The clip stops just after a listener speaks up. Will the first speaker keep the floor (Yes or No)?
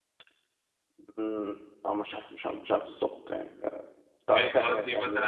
No